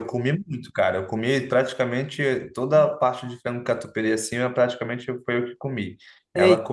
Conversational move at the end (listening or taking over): listening